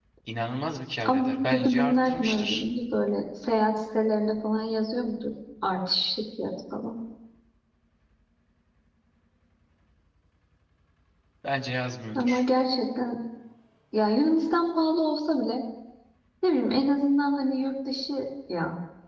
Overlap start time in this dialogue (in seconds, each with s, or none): 1.1 s